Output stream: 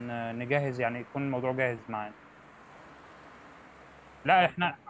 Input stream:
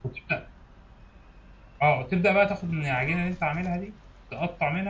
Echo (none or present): none